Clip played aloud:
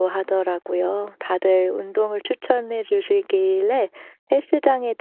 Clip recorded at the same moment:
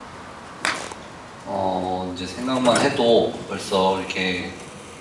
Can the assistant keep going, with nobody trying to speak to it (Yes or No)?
No